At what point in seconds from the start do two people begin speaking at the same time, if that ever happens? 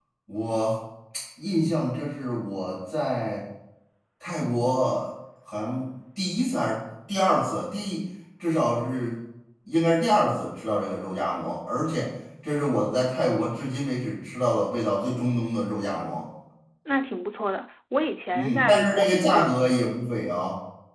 18.3 s

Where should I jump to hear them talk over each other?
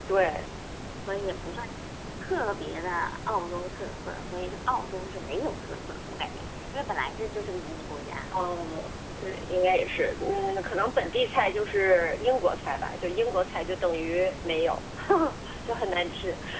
none

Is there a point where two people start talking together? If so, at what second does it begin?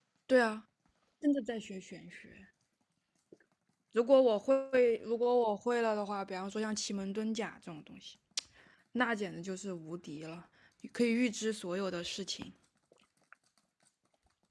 none

